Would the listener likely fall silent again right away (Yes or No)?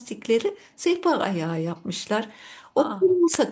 Yes